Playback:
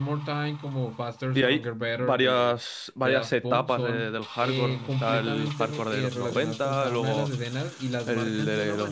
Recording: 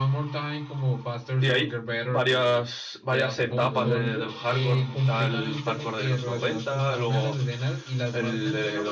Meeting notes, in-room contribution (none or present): present